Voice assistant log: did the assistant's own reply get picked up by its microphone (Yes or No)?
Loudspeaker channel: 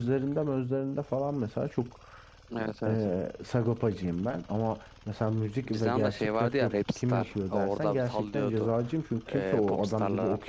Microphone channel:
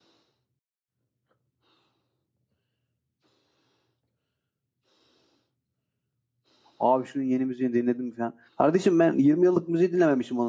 No